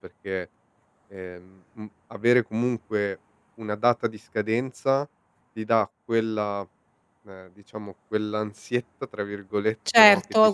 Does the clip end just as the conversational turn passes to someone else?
Yes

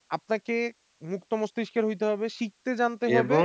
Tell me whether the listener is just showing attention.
No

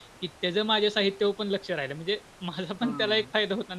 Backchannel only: No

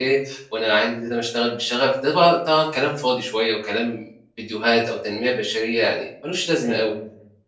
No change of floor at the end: No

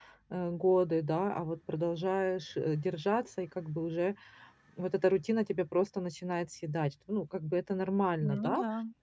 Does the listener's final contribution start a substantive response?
No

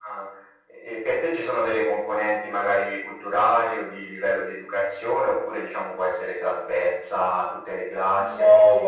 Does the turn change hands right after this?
Yes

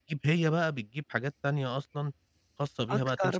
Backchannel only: Yes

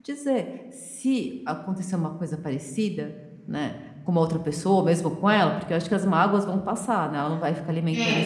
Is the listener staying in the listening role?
No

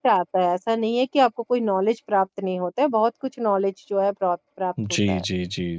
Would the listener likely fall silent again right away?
No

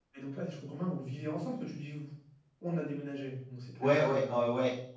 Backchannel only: No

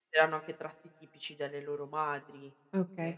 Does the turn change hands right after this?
Yes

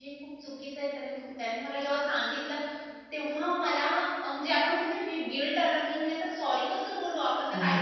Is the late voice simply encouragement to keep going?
No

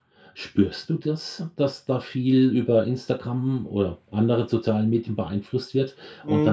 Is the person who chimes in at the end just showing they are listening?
Yes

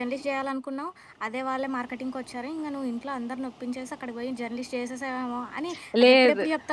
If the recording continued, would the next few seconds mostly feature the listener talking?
No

